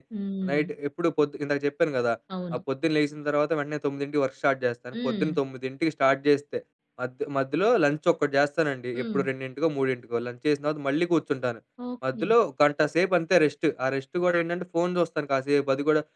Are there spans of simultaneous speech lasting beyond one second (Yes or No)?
No